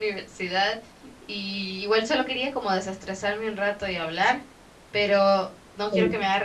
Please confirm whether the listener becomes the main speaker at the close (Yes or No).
No